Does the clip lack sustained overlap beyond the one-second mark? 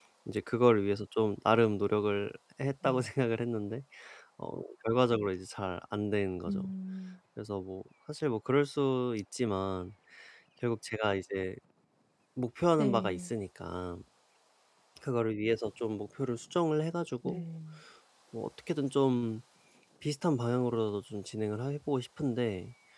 Yes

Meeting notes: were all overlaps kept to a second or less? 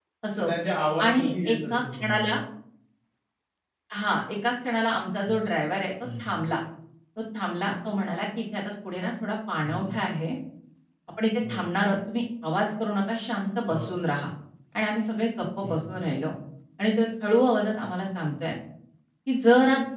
No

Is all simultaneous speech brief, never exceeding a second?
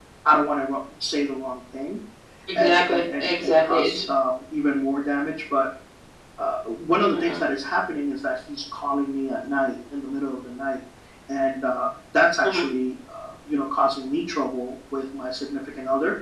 No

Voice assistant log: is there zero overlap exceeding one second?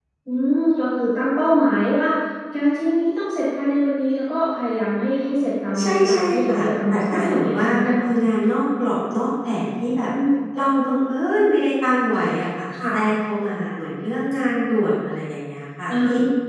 No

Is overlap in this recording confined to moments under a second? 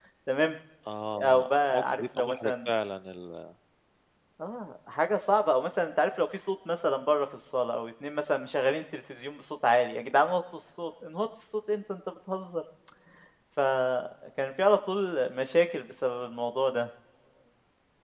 No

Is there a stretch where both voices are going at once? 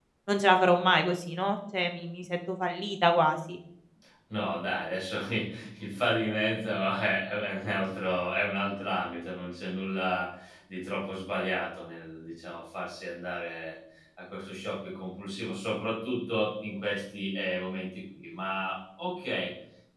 No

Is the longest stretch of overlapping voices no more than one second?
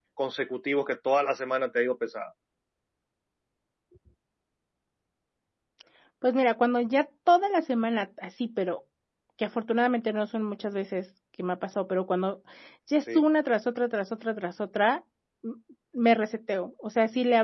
Yes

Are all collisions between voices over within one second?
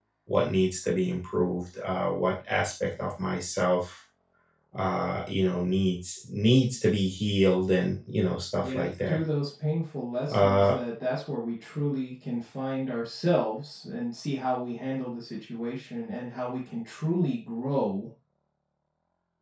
Yes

